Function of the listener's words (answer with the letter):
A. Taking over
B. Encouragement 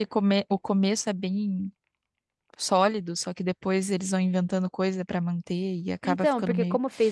A